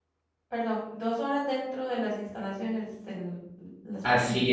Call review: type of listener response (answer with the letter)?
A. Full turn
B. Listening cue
A